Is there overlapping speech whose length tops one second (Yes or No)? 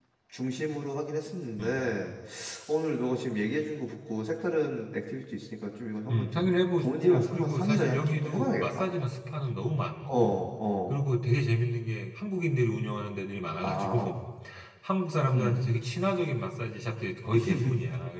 Yes